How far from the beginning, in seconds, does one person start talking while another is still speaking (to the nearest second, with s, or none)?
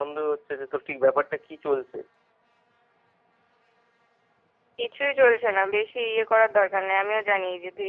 none